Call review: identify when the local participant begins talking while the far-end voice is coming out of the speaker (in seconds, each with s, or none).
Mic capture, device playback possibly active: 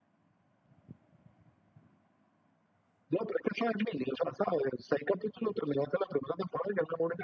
none